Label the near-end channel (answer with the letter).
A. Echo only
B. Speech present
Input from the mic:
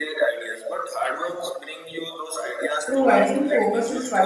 B